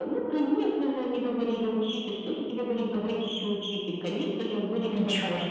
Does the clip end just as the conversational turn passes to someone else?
No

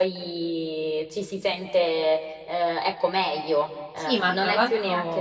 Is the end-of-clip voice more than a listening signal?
Yes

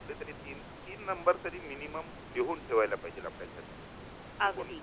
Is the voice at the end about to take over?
Yes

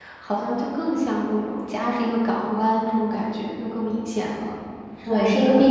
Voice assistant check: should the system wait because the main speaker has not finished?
No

